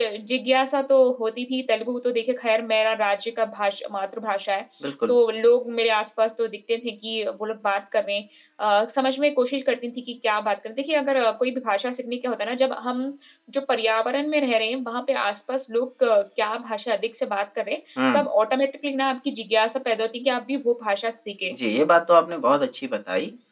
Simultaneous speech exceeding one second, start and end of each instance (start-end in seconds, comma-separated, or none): none